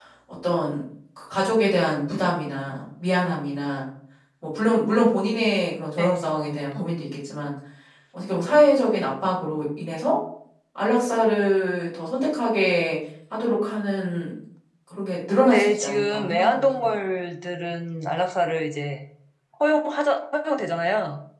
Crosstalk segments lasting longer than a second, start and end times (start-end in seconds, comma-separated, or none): 15.4-16.9